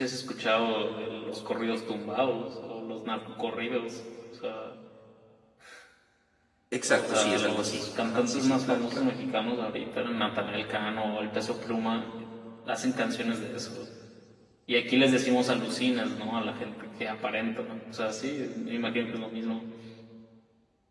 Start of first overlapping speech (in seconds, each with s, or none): 6.9 s